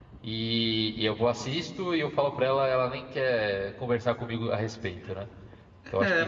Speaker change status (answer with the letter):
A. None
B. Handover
B